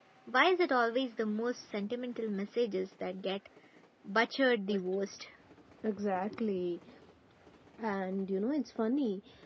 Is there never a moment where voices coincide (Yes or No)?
Yes